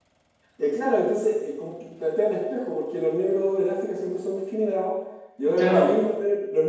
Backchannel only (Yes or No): Yes